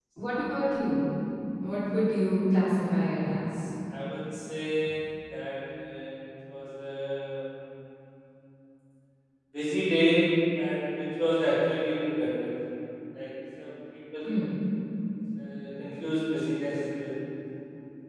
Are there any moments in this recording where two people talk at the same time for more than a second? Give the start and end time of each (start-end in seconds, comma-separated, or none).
none